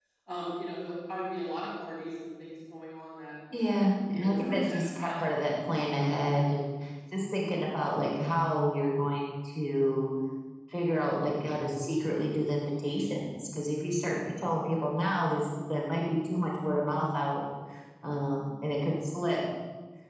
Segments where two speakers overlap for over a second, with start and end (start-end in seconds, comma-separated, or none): 3.8-5.3